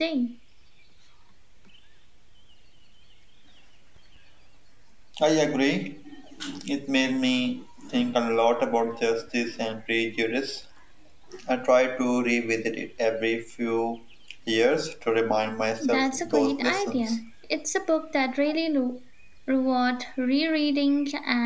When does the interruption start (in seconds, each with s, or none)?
15.8 s